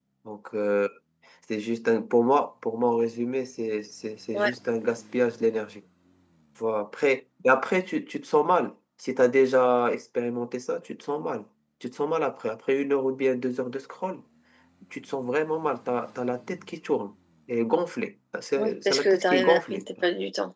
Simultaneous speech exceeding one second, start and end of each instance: 18.6-19.9

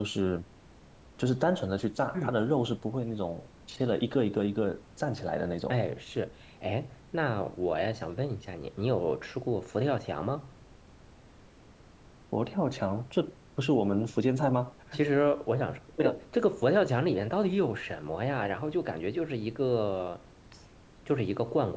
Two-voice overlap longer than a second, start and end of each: none

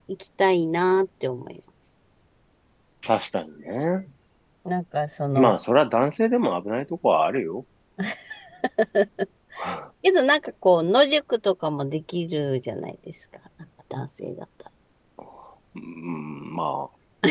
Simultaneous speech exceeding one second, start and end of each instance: none

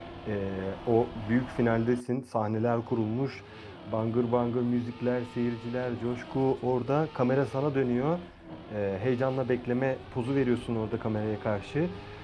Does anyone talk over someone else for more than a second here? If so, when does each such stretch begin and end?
none

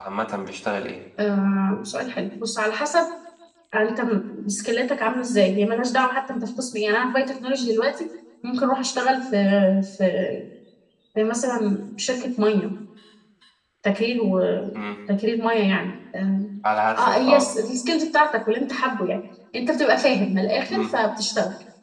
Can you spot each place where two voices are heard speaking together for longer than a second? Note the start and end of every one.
none

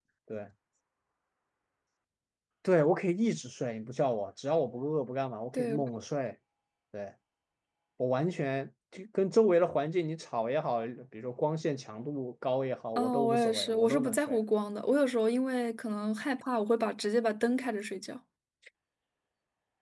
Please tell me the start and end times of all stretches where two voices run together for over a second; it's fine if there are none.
13.0-14.4

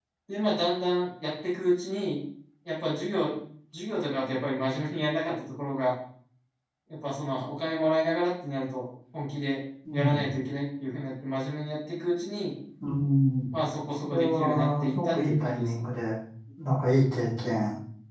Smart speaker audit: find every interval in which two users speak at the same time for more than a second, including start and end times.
14.0-15.9

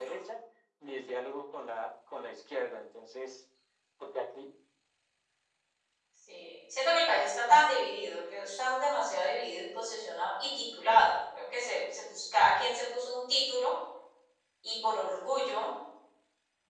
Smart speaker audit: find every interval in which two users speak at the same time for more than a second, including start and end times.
none

